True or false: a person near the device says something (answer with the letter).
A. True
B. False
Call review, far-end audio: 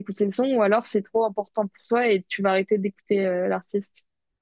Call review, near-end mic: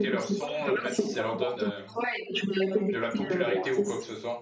A